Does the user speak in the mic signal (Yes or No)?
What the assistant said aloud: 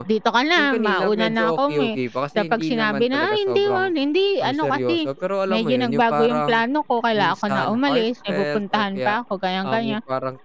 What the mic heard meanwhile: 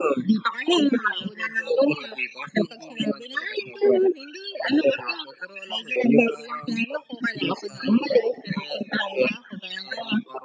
No